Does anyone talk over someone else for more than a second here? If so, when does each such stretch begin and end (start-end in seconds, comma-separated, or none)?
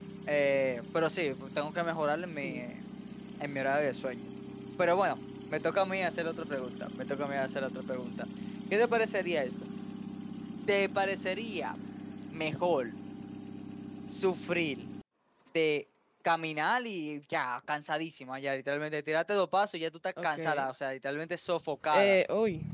none